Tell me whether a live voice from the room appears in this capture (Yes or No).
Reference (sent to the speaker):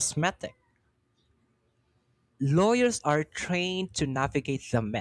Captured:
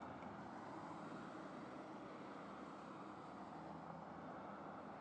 No